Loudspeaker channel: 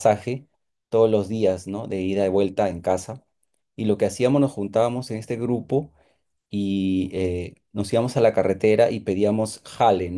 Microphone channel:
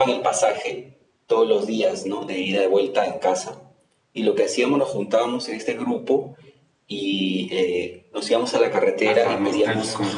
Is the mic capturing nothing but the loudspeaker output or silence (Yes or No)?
No